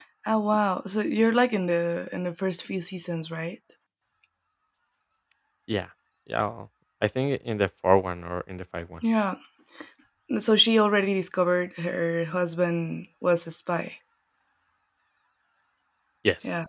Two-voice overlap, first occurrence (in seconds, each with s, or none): none